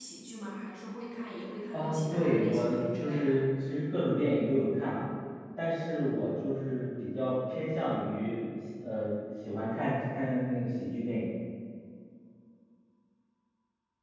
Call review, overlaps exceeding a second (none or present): present